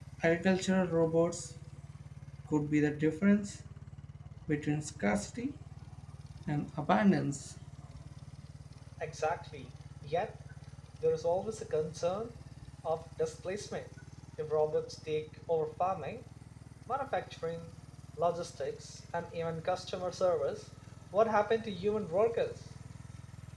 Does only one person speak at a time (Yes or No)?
Yes